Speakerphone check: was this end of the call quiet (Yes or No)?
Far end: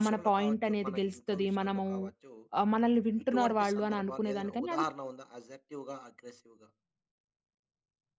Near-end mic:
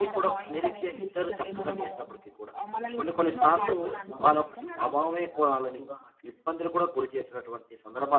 No